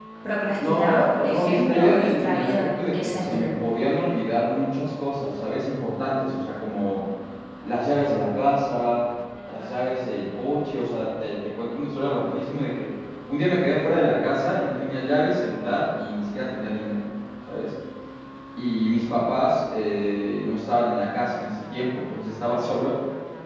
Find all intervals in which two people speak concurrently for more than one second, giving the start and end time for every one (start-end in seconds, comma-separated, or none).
0.6-3.5